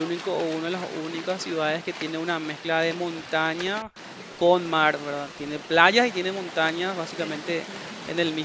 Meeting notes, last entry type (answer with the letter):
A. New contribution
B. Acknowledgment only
B